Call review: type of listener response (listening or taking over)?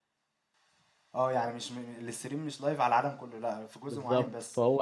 taking over